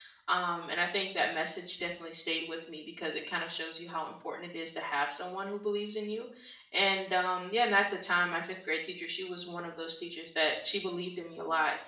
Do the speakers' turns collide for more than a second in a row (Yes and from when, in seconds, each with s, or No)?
No